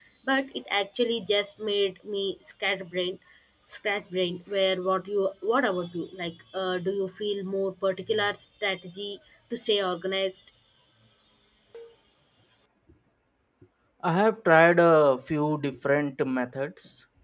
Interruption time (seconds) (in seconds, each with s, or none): none